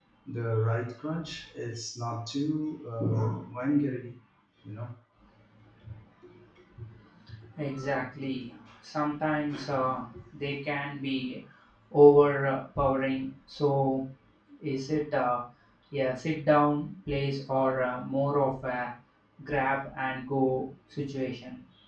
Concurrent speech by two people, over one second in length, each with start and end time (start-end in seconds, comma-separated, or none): none